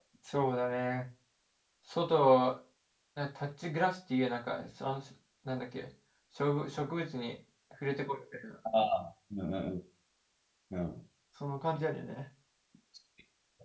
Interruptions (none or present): none